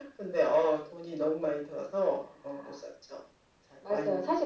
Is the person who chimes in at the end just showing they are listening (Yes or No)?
No